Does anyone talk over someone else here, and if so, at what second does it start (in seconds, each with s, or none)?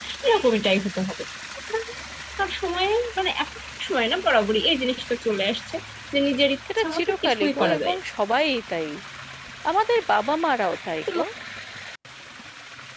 6.8 s